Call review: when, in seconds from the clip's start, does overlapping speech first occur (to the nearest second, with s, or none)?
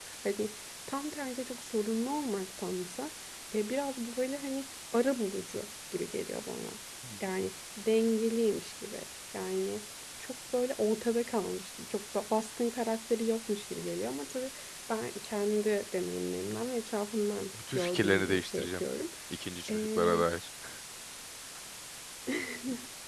18 s